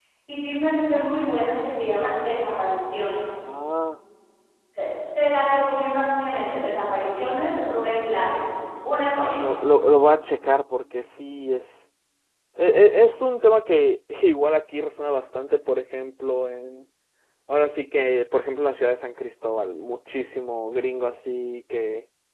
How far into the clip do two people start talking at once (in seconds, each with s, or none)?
none